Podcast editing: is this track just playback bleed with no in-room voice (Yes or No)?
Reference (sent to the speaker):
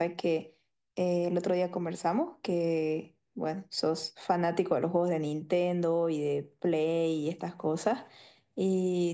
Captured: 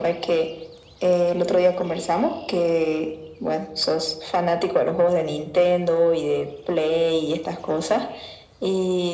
Yes